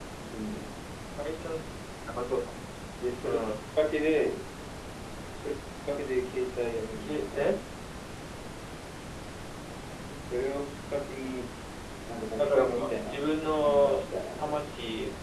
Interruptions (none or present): present